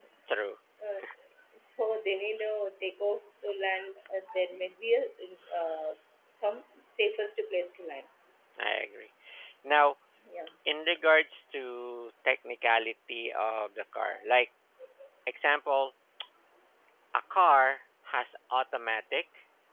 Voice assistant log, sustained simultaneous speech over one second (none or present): none